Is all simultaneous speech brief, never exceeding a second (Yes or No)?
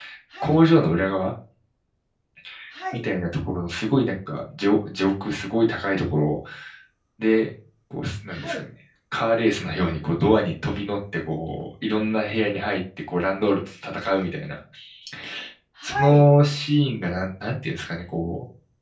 Yes